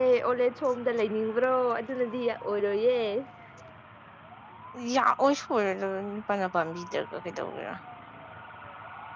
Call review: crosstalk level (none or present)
none